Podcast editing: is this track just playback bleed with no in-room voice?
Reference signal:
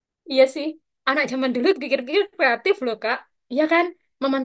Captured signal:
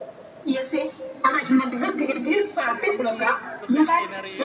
No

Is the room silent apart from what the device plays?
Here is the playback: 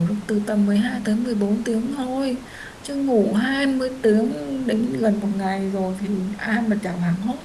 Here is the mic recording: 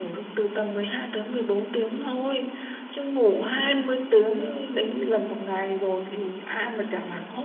Yes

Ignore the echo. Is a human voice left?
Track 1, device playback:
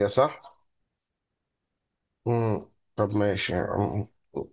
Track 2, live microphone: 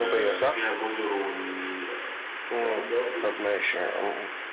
Yes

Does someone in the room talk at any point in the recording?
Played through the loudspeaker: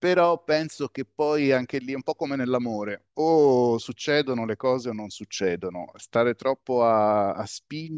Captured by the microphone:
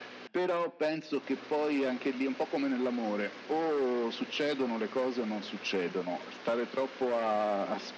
No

